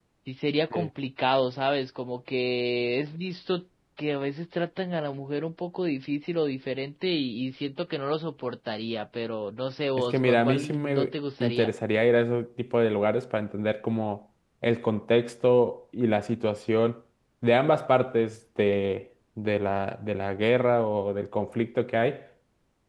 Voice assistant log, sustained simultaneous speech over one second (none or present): present